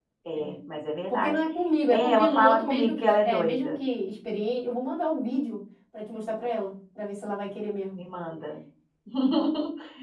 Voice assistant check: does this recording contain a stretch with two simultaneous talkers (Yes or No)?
Yes